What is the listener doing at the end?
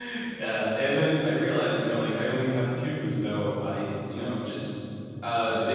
listening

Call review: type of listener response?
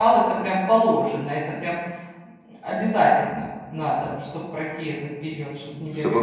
taking over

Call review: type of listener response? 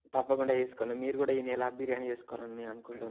taking over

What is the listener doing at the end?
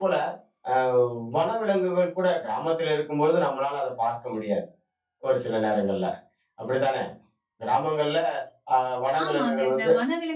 taking over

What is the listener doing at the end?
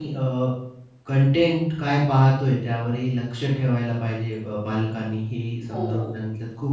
listening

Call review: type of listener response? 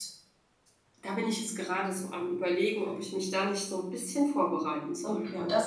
taking over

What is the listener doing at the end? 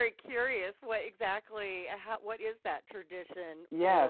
taking over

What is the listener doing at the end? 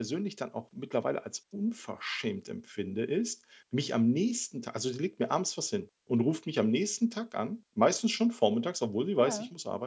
listening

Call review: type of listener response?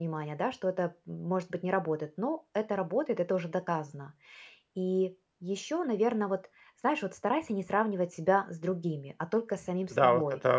taking over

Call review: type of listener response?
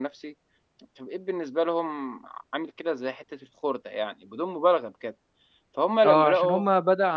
taking over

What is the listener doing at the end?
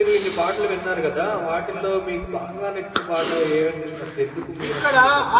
taking over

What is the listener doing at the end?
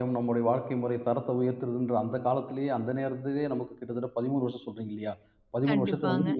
listening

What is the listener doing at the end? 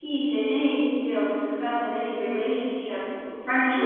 listening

